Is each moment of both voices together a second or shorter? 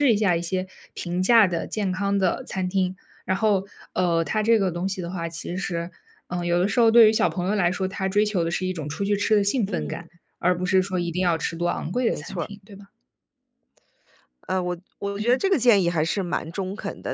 Yes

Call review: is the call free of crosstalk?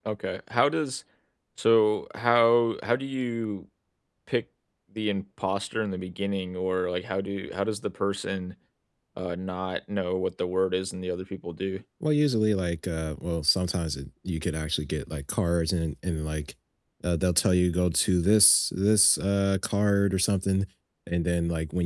Yes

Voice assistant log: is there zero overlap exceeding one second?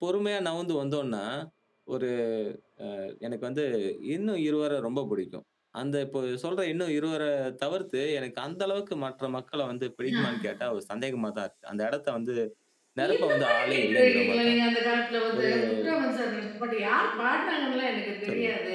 No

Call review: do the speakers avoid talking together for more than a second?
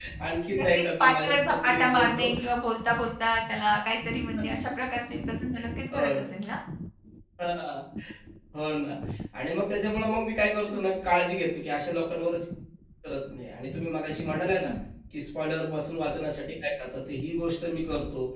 No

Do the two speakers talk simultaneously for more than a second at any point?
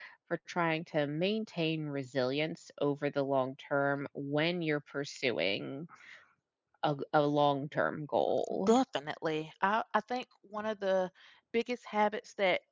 No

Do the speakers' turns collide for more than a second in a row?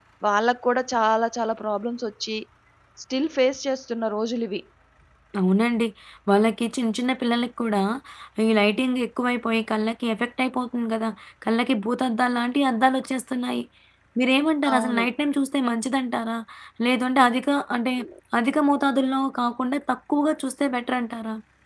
No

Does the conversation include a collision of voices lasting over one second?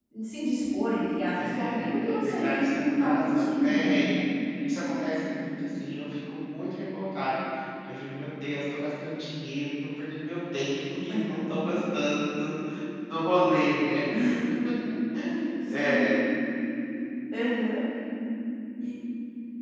Yes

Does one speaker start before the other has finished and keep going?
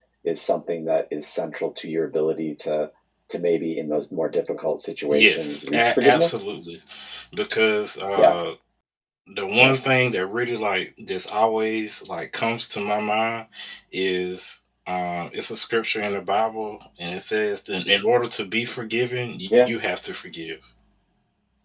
Yes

